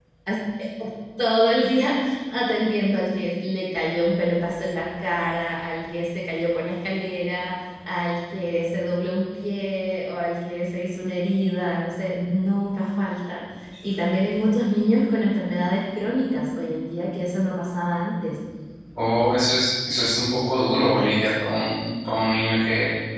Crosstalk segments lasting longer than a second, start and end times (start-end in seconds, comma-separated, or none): none